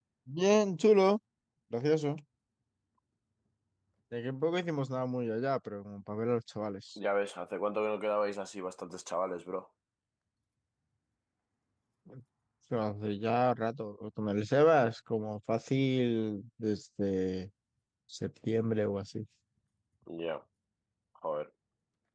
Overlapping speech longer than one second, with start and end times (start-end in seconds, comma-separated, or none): none